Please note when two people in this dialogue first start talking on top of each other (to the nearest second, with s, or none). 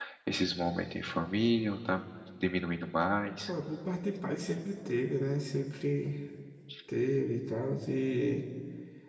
none